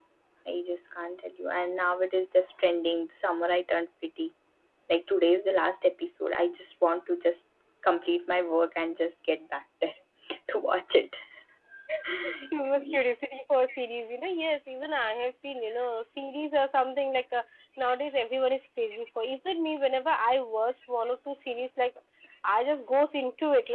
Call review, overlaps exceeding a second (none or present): none